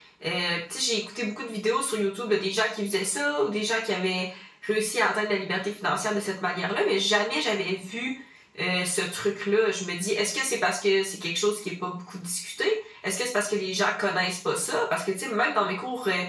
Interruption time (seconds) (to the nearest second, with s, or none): none